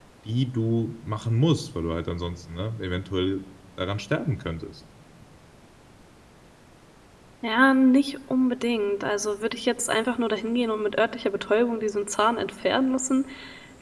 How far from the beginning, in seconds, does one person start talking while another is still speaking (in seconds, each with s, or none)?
none